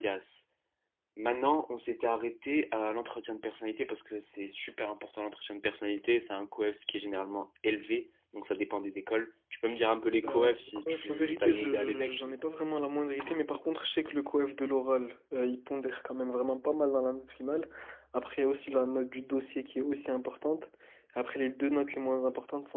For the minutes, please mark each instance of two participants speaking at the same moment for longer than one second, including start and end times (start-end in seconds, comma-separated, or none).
10.2-12.2